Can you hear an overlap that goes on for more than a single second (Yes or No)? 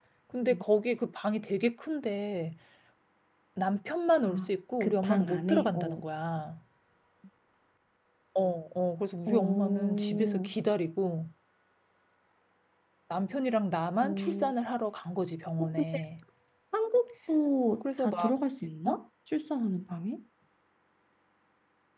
Yes